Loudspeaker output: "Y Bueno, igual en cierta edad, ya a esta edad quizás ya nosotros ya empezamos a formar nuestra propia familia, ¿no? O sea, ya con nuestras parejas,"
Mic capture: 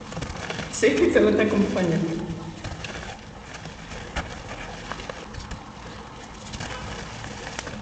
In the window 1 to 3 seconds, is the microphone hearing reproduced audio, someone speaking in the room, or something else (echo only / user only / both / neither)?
user only